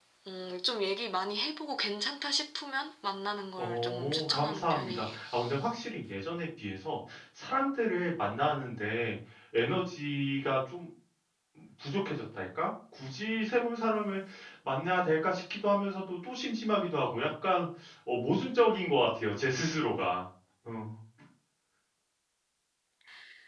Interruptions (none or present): present